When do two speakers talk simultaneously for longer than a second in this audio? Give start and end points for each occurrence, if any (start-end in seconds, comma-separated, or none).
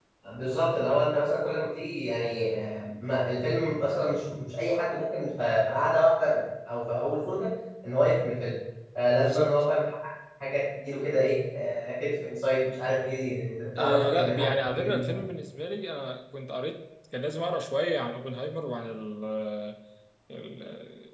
13.8-15.0